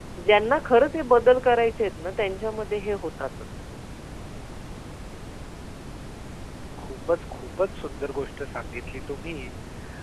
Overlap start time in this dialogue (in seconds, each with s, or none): none